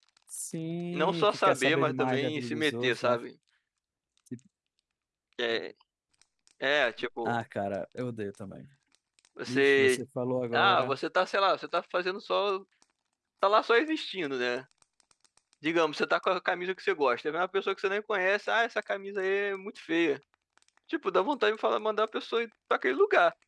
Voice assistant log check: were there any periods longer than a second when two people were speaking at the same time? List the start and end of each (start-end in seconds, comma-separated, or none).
0.9-3.1